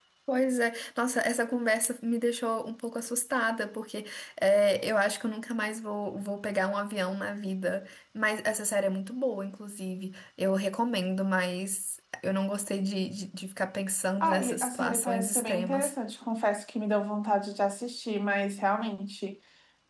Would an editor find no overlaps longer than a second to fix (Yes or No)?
No